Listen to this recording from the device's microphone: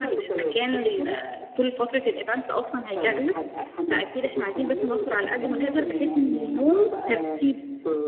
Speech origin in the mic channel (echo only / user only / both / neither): both